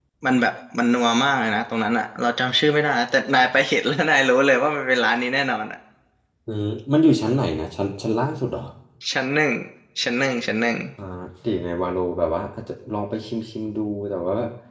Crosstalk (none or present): none